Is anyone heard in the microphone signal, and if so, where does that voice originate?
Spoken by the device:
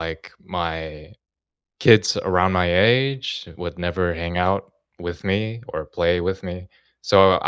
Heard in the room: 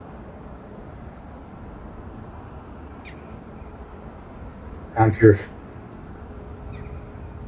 user only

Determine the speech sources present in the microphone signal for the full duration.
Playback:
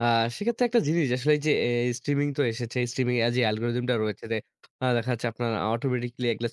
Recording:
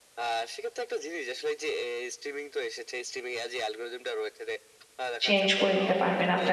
both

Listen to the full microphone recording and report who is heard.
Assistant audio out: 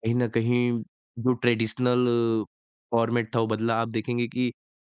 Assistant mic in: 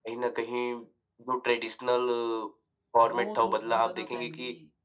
both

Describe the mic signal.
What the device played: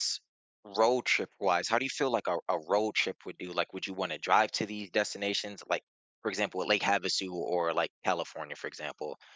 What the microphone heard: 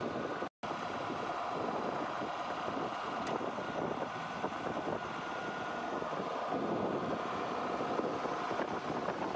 neither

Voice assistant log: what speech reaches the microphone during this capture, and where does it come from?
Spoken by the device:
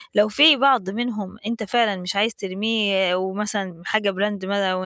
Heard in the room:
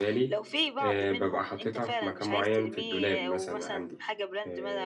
both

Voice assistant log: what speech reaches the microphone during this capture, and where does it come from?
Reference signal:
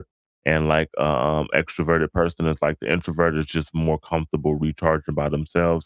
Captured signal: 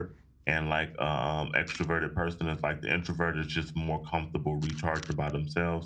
echo only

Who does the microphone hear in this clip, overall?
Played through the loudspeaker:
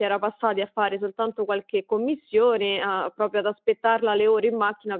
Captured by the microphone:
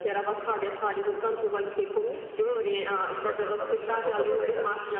both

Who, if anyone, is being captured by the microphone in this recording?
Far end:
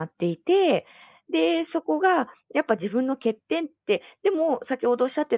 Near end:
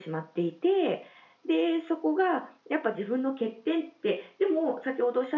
echo only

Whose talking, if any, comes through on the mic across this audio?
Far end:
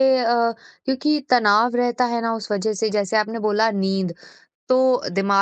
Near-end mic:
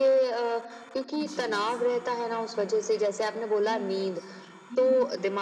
both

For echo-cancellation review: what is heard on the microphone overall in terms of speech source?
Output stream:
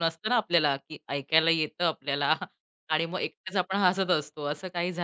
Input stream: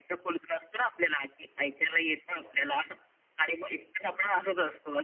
echo only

